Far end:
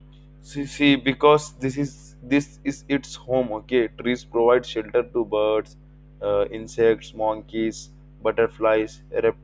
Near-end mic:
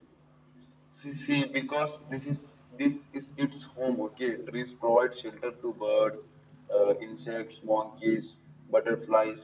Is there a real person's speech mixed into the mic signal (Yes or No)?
No